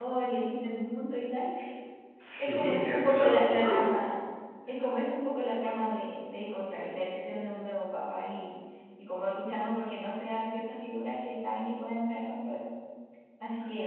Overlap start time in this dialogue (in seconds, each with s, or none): 2.4 s